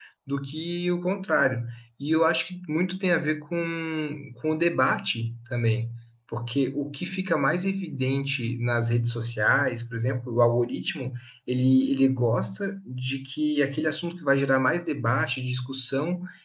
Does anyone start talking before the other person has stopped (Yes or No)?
No